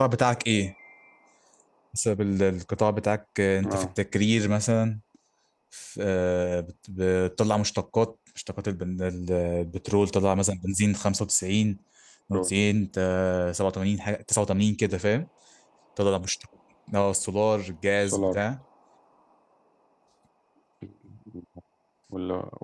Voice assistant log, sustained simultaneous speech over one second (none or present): none